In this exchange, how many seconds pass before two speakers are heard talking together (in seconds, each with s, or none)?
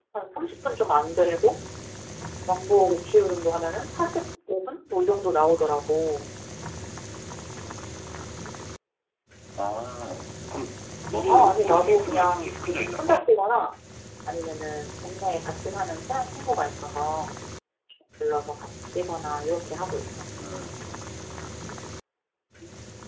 11.3 s